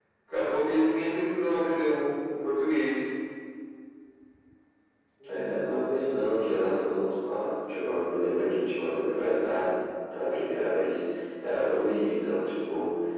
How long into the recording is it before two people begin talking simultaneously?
none

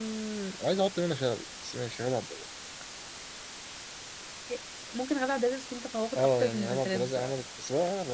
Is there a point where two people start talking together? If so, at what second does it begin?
6.2 s

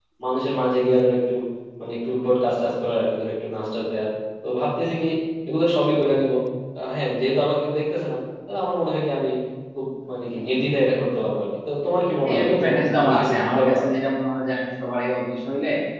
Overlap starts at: 12.2 s

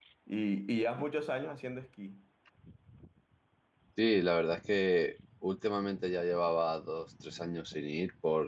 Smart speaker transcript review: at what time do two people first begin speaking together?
none

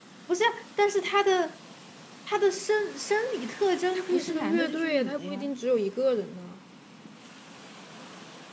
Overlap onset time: 3.9 s

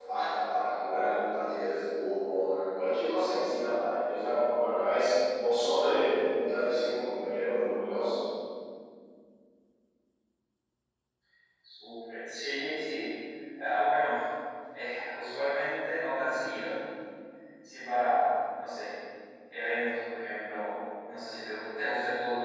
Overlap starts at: none

